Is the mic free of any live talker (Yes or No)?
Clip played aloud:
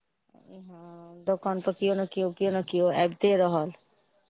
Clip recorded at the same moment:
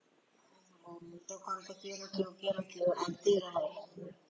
Yes